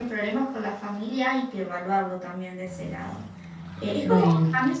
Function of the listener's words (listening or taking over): listening